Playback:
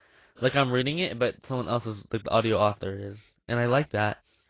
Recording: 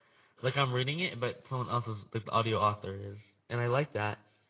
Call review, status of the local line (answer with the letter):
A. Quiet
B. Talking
A